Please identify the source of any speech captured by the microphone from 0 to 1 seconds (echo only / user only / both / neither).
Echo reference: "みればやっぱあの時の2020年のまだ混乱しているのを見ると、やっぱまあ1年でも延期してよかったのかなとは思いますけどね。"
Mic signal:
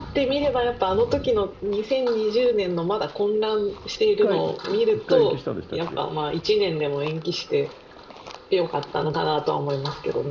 echo only